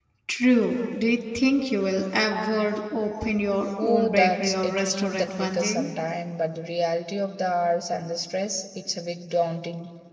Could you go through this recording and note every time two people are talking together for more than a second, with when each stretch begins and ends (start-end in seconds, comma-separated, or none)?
3.8-5.9